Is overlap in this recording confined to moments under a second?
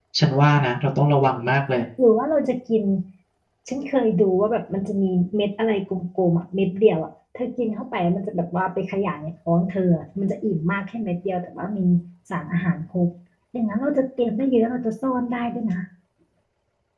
Yes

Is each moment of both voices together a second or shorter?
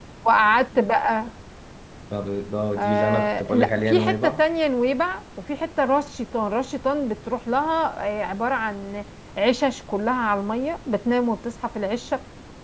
No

